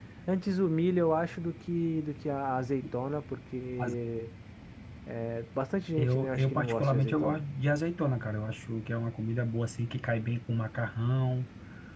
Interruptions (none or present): present